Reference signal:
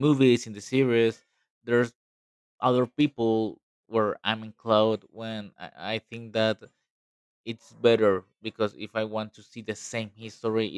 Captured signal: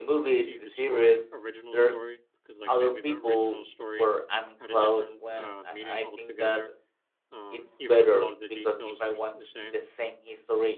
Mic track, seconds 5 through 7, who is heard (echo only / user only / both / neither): both